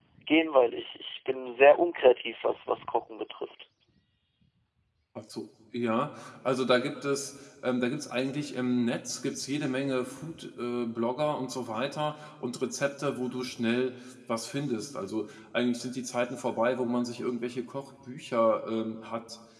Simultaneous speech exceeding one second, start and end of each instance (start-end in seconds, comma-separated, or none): none